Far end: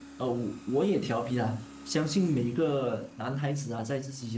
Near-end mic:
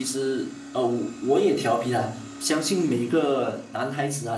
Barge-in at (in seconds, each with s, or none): none